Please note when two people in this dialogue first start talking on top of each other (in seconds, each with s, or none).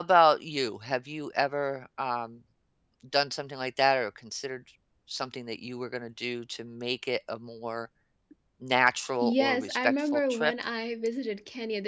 9.2 s